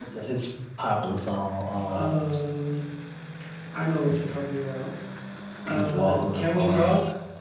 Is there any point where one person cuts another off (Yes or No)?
Yes